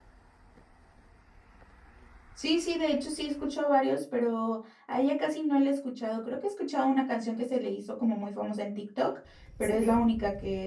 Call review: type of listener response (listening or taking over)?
listening